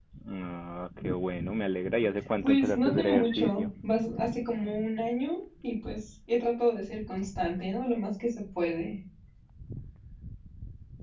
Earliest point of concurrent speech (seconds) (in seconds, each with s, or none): 2.4 s